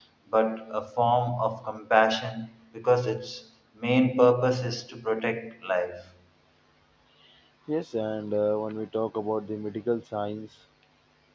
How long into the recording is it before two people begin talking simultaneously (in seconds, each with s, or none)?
none